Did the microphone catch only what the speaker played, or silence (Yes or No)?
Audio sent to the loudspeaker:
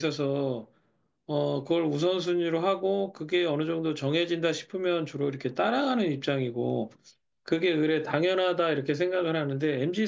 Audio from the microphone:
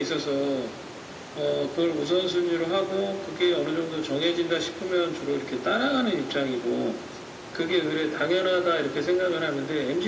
Yes